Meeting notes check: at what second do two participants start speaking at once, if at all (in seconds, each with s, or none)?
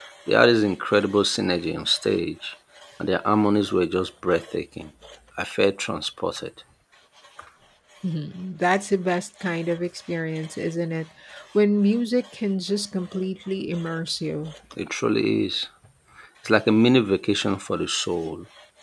none